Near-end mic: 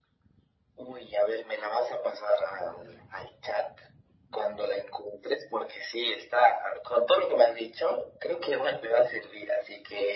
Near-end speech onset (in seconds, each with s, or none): none